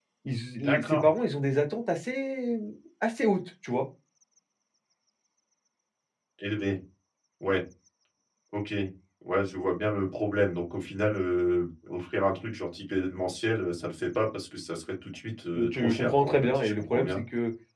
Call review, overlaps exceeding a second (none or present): present